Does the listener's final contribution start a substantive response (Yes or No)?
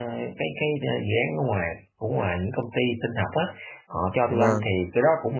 No